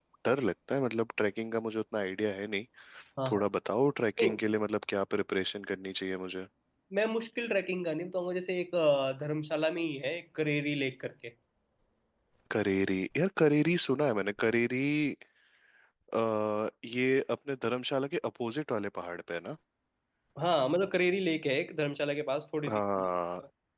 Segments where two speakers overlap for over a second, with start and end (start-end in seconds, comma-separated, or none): none